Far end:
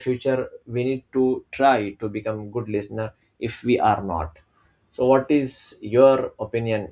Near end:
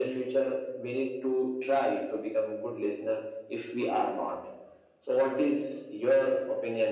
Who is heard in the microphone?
echo only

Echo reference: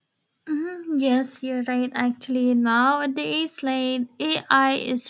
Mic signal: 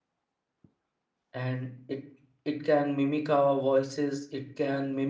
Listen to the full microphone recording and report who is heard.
user only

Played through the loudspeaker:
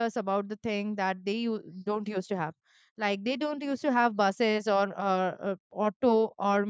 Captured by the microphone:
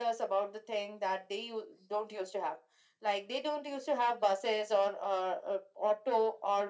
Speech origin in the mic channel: echo only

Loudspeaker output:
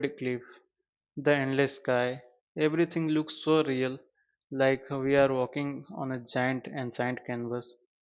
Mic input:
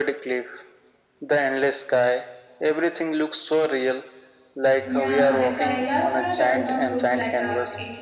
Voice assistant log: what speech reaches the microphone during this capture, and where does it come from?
both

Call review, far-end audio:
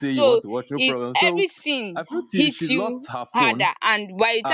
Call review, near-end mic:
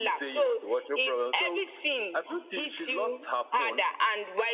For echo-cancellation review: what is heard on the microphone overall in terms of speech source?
echo only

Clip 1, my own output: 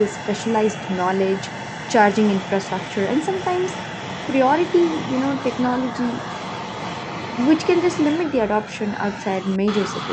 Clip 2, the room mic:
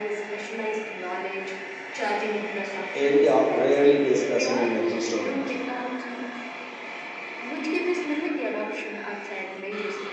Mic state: both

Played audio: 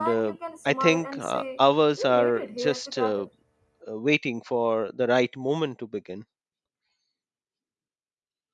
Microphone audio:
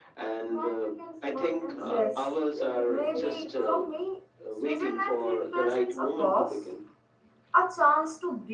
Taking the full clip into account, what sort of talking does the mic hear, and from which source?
both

